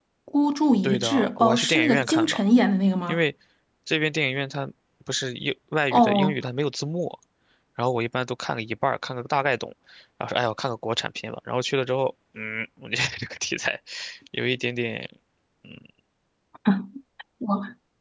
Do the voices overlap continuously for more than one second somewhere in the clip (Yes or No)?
Yes